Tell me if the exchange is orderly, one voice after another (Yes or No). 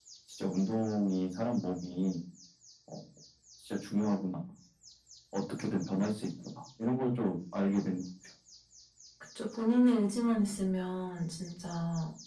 Yes